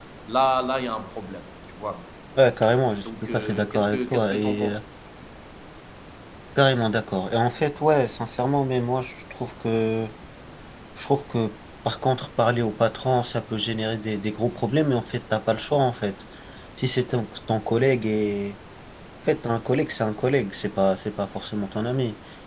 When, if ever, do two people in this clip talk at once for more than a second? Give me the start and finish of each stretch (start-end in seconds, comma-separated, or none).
3.0-4.8